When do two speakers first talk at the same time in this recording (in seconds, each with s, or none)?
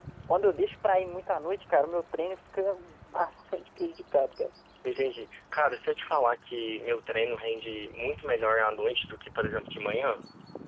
none